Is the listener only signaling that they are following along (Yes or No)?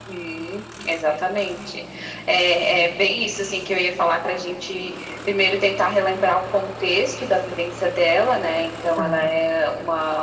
Yes